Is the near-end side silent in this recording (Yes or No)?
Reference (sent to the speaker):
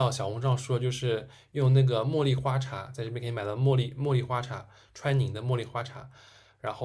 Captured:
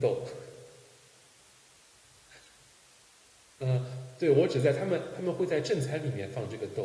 No